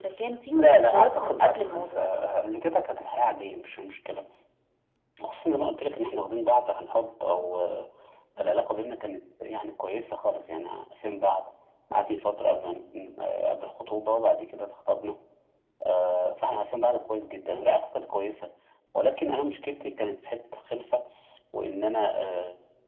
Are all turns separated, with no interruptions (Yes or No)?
No